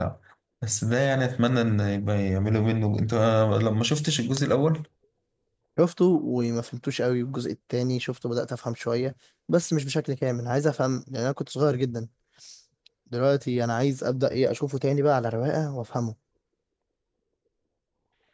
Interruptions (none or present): none